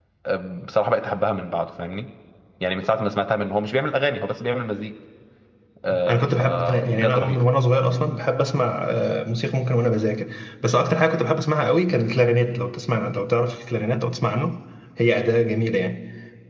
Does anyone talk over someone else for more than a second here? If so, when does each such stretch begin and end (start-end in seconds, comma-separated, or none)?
6.1-7.4